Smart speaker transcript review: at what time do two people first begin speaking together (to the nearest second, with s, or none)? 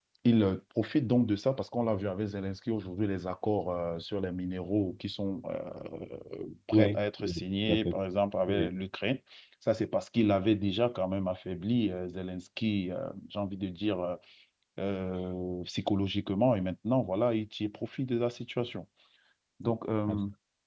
7 s